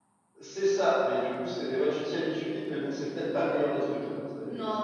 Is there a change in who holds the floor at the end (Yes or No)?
Yes